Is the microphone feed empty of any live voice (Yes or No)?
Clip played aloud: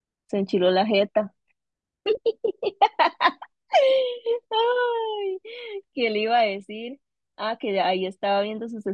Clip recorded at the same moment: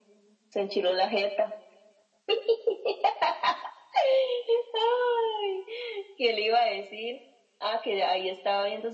Yes